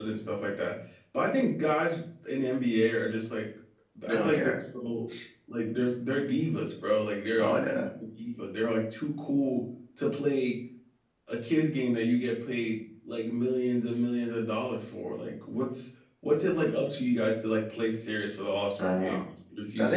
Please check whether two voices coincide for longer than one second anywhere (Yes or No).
No